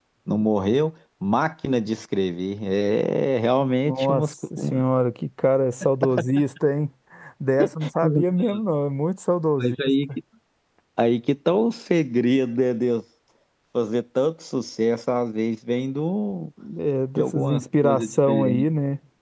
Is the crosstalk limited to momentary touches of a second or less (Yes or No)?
No